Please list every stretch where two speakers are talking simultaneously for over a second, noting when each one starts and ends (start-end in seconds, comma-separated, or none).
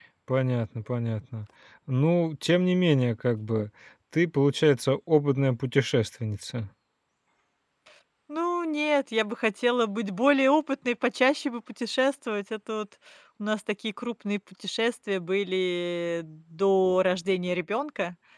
none